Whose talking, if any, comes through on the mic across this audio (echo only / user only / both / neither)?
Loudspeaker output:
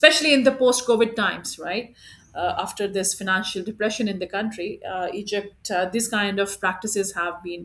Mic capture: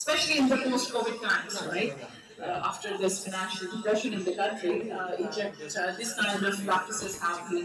both